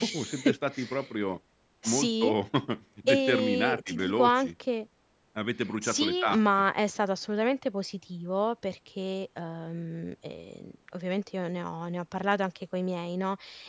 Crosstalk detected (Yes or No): Yes